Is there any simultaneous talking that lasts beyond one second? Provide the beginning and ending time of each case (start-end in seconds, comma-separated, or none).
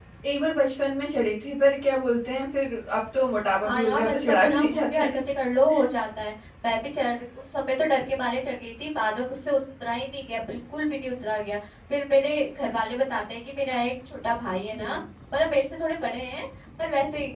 3.7-5.2